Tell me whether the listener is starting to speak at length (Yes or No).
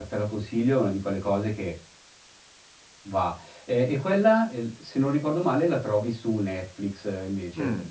Yes